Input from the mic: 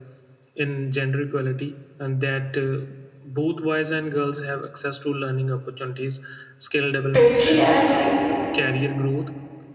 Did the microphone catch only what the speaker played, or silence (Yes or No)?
No